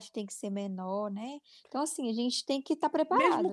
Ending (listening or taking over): taking over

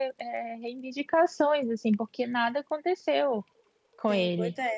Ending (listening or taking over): taking over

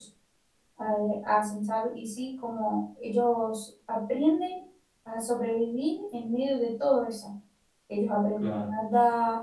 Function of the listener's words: listening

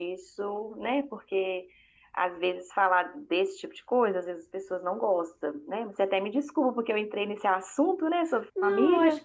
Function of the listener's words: taking over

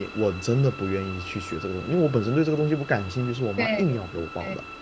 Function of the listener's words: taking over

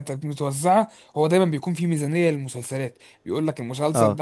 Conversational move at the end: listening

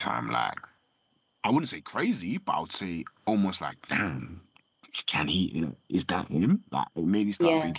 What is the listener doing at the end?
listening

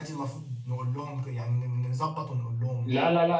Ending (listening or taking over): taking over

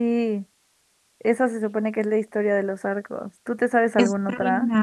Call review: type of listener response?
taking over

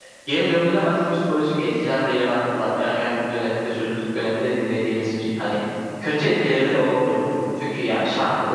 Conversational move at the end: listening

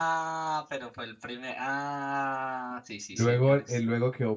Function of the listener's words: taking over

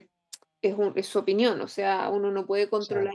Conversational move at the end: listening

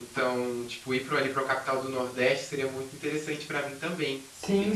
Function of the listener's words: taking over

